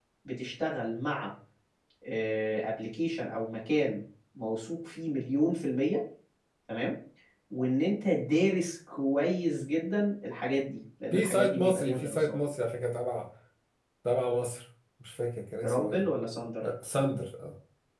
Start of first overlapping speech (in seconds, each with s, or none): 11.1 s